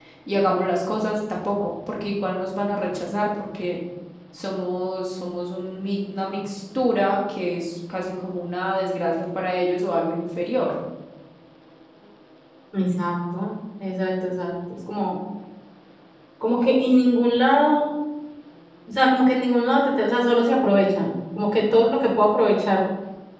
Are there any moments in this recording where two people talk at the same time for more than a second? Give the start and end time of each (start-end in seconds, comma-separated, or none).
none